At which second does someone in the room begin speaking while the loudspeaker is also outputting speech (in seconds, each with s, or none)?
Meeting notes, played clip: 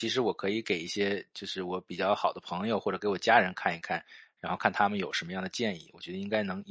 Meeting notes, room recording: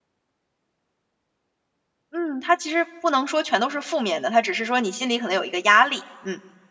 2.1 s